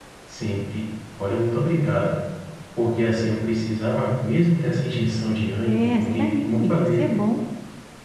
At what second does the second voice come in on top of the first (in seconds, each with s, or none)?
5.7 s